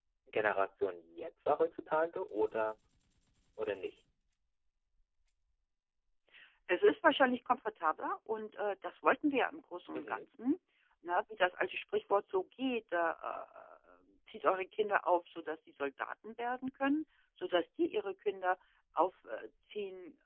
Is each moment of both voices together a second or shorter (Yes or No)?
Yes